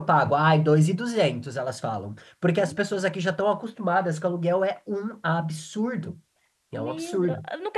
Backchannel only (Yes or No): No